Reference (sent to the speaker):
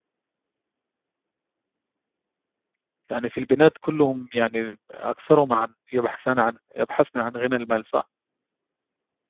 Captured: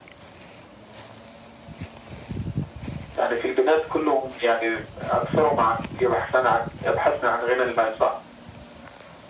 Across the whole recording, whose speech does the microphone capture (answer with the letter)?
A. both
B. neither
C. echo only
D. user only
C